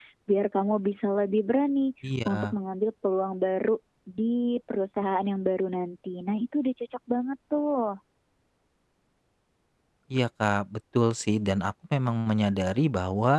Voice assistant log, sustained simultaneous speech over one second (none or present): none